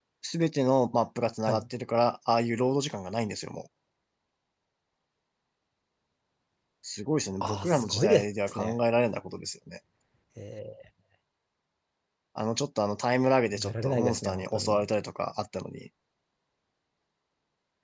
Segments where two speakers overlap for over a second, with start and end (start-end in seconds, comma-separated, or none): 7.4-8.7, 13.5-14.8